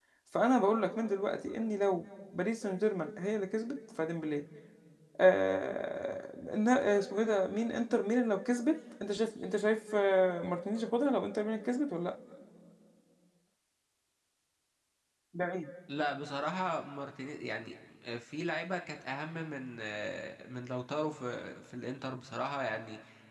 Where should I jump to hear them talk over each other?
none

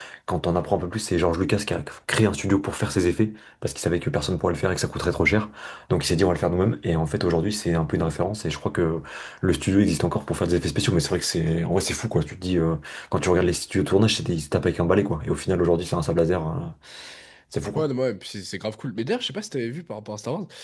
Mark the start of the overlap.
none

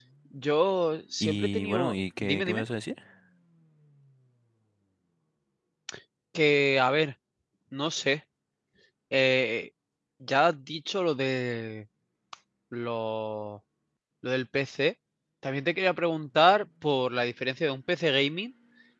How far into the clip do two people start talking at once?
1.2 s

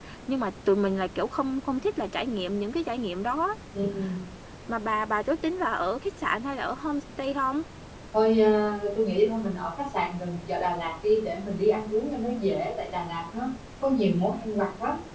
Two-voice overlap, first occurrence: none

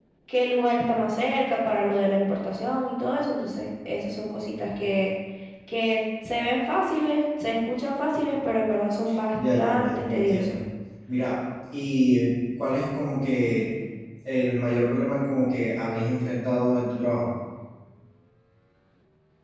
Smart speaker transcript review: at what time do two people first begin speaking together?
9.4 s

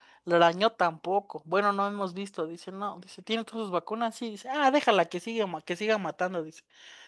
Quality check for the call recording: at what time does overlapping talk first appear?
none

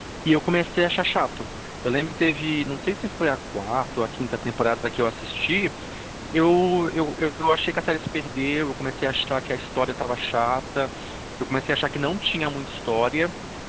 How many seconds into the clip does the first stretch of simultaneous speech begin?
none

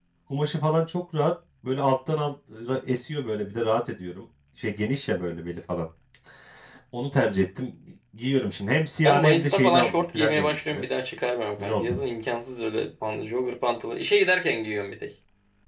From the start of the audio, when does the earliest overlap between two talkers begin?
9.0 s

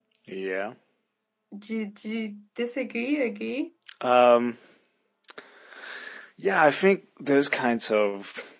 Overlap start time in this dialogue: none

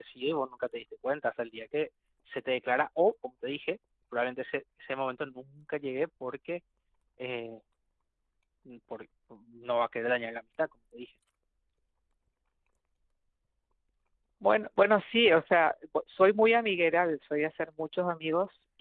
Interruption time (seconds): none

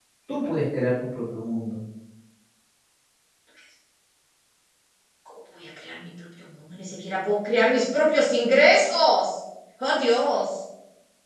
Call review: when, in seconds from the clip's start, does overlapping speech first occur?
none

